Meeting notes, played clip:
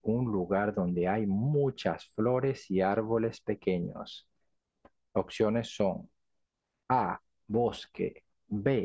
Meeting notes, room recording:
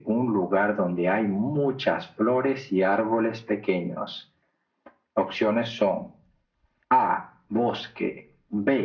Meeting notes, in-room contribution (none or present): none